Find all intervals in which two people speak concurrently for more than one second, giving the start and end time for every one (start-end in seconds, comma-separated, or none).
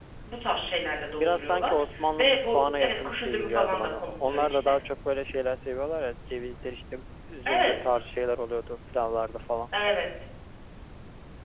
1.2-4.7